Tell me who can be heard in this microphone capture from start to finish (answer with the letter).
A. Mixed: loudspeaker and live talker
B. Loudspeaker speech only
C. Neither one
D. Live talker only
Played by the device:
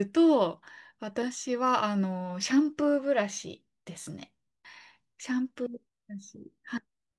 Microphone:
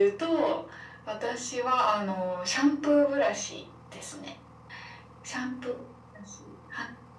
B